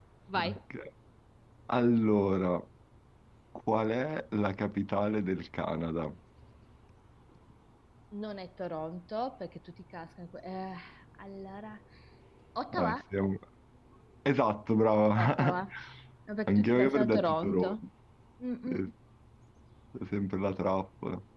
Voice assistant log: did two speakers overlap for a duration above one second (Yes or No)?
Yes